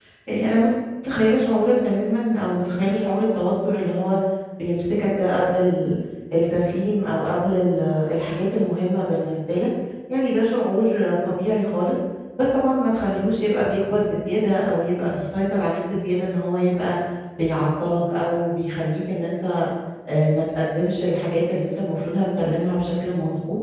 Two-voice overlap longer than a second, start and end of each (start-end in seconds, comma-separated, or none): none